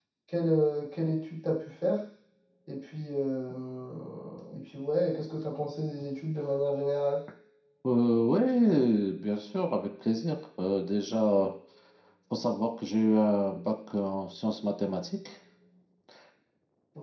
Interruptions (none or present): none